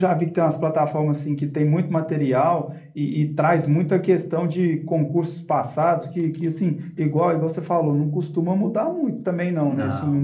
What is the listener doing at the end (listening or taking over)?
listening